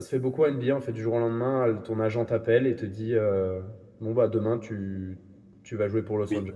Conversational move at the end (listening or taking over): taking over